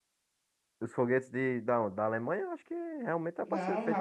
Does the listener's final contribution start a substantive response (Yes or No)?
Yes